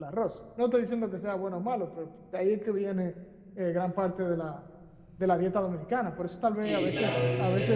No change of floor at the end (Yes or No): No